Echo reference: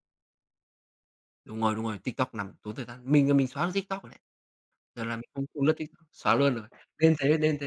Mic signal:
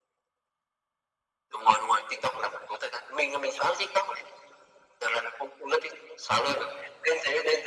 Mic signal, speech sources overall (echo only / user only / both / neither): echo only